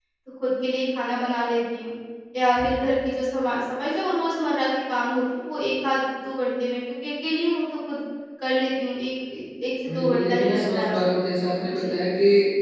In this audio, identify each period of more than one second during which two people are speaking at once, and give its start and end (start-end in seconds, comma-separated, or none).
9.9-11.2